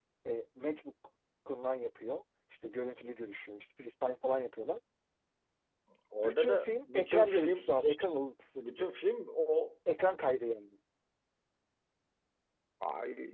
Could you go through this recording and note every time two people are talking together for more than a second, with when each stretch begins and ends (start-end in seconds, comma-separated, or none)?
6.2-7.7